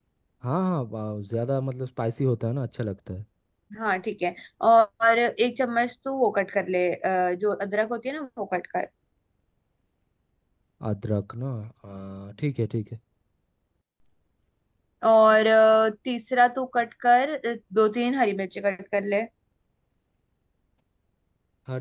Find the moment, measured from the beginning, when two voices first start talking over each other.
none

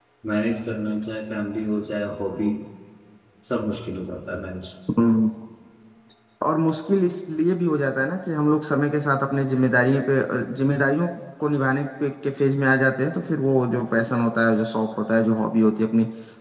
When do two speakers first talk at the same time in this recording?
none

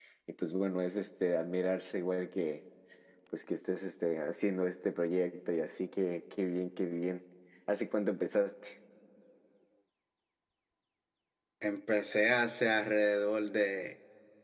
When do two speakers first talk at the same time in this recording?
none

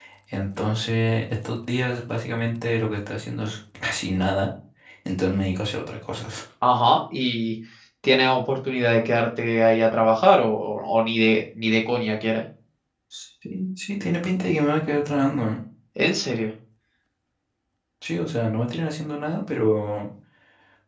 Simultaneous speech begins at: none

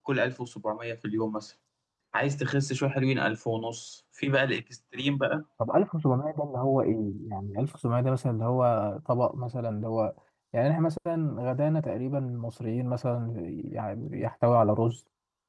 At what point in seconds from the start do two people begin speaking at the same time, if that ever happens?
none

